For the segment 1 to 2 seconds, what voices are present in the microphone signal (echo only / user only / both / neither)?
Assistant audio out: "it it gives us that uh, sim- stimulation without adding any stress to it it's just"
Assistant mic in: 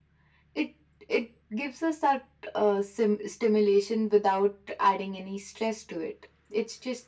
echo only